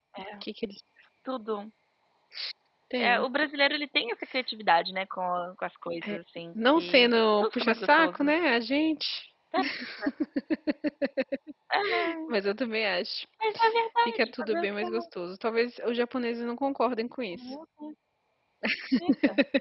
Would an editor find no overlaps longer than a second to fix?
No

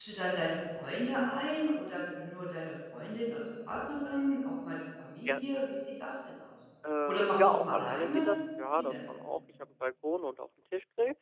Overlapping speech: Yes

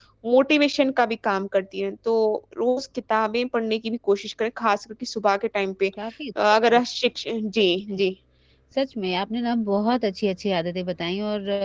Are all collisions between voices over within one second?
Yes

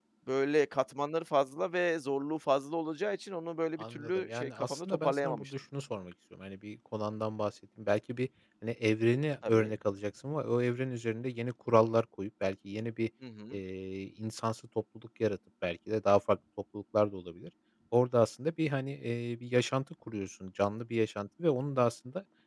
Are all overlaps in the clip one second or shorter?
No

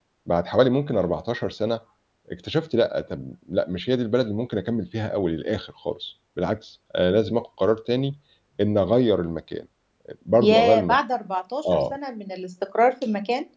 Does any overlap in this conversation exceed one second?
No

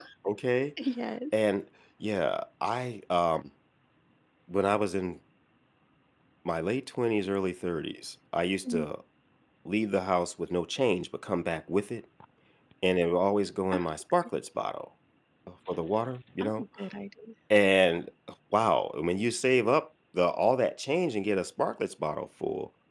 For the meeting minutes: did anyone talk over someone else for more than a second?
No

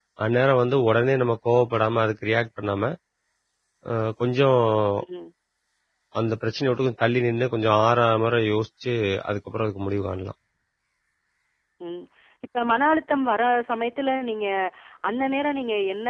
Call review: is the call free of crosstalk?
Yes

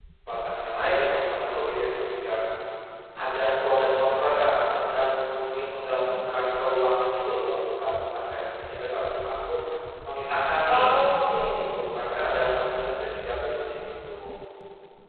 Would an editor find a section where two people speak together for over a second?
No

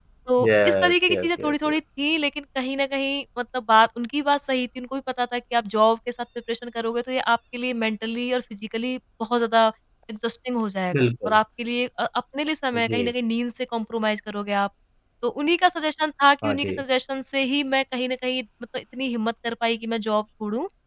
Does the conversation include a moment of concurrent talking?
Yes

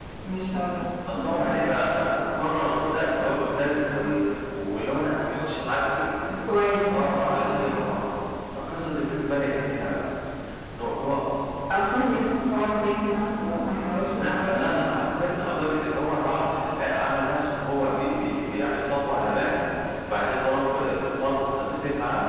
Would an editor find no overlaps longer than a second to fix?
Yes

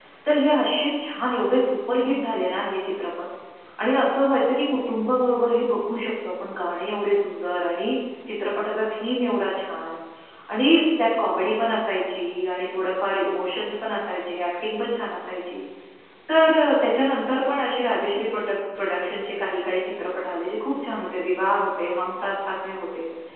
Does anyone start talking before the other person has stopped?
No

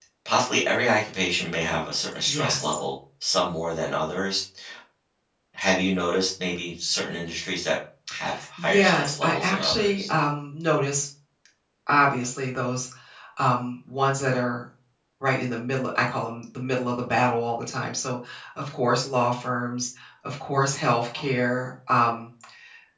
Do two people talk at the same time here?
Yes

